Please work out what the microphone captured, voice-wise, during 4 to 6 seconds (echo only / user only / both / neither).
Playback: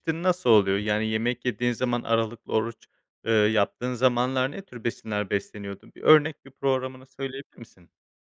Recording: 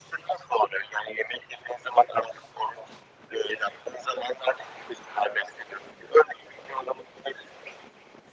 echo only